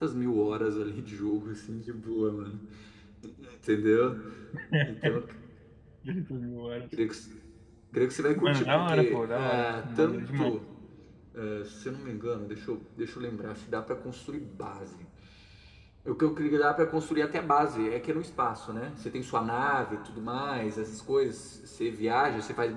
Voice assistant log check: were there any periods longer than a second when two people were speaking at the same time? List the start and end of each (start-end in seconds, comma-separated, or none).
8.4-10.5